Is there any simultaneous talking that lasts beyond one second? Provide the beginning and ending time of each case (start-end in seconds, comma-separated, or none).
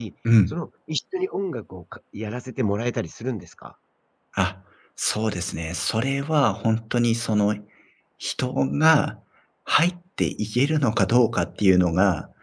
none